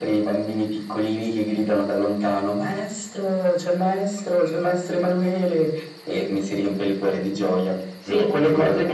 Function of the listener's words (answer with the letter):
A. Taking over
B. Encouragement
A